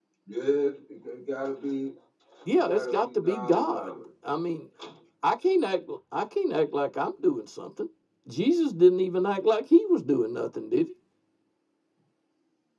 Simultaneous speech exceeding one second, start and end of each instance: 2.5-3.9

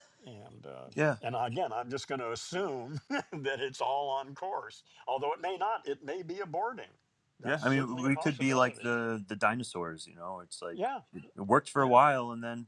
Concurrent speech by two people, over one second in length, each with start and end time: 7.4-8.9

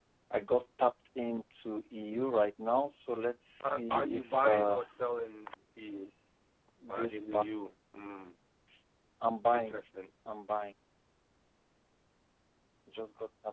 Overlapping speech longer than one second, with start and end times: 3.6-4.8

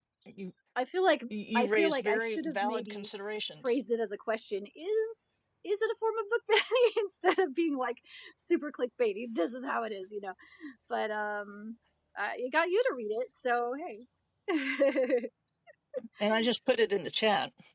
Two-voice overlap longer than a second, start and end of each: 1.3-3.1

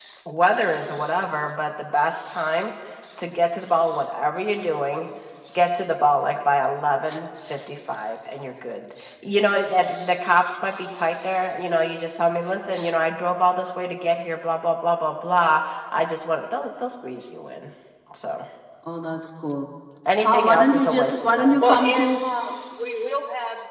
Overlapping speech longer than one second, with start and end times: 20.2-22.2

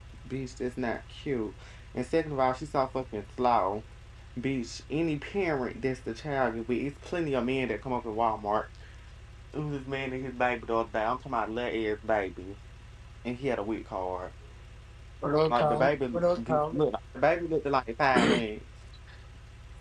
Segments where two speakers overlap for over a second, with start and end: 15.5-16.8

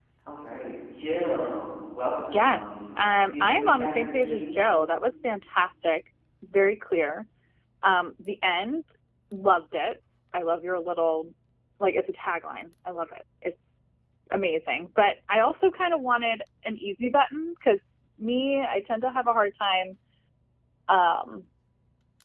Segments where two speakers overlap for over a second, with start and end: 2.3-4.8

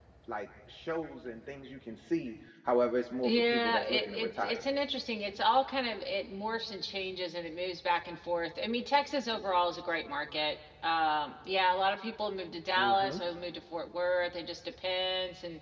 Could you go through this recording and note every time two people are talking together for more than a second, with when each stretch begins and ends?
3.2-4.7

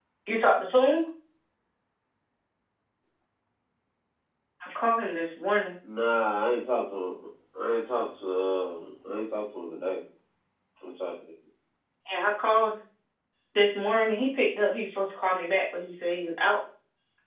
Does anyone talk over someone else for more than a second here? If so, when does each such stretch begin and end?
none

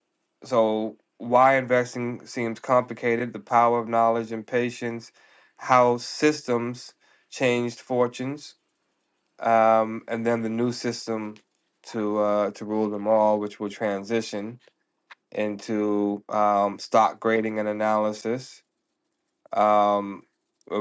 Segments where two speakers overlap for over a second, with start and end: none

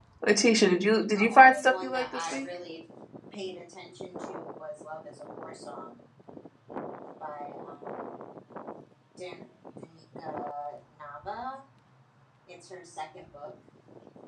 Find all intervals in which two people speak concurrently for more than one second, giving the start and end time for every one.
1.1-2.5

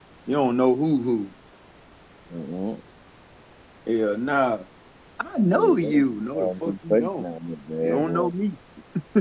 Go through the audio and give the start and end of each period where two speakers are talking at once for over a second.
5.5-7.2

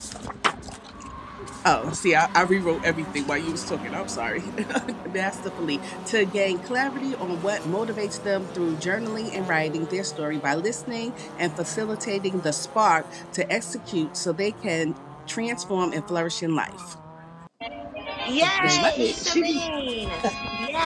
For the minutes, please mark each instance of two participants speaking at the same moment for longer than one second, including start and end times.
18.4-19.6

